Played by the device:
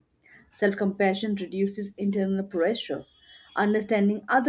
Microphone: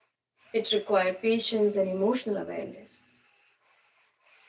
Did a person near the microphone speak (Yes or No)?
Yes